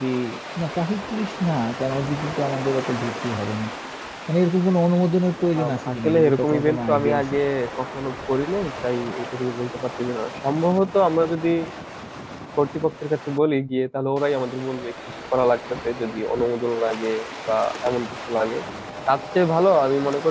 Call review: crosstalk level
present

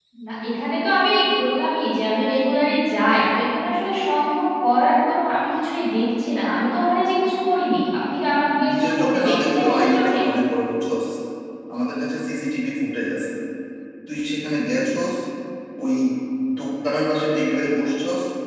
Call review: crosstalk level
present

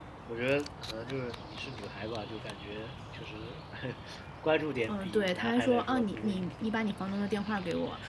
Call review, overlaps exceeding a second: present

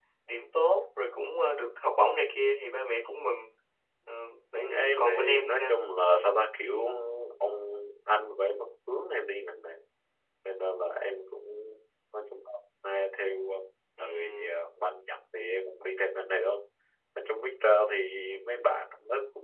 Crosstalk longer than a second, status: present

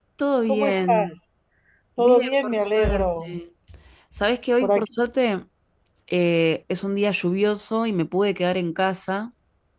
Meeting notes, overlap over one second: present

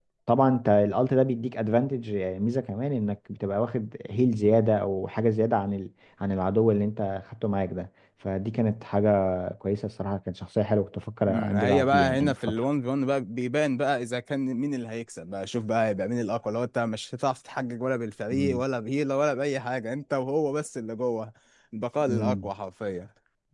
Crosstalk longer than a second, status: present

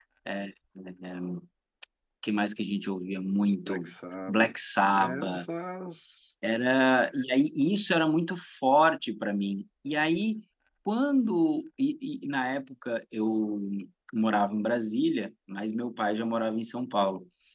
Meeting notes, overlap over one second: none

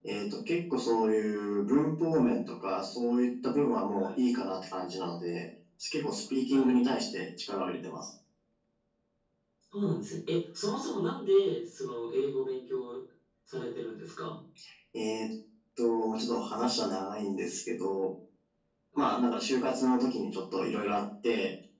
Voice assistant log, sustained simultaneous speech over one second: none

